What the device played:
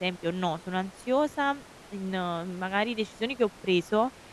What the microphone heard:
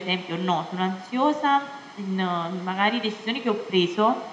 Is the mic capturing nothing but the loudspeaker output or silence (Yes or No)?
Yes